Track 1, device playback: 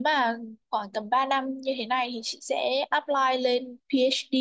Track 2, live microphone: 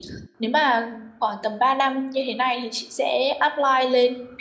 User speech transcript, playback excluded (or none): none